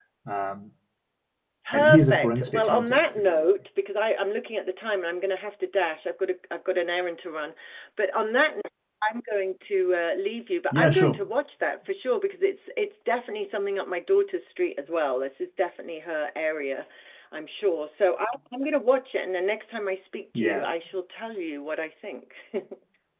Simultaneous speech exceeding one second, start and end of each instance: 1.7-3.5

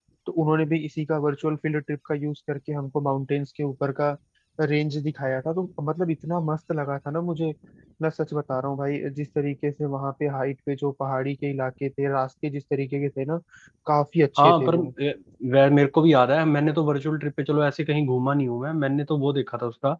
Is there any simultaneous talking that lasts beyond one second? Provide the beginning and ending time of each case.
none

